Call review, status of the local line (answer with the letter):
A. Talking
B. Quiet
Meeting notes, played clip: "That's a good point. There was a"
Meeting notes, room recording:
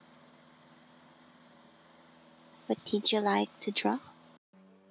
A